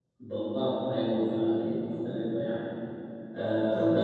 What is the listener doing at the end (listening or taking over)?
listening